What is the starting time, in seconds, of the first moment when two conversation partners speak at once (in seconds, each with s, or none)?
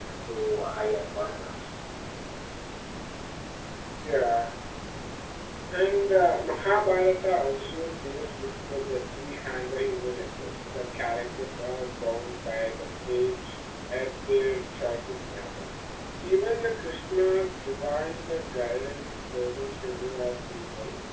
none